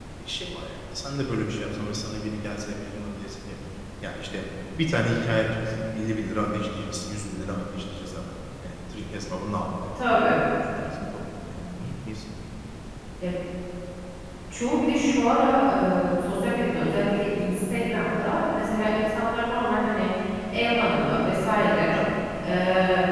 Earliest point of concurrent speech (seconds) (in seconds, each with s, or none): none